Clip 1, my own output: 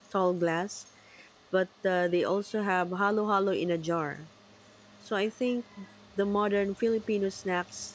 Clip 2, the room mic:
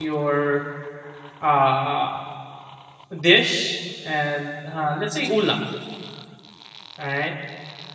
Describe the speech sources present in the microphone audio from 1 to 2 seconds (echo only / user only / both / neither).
user only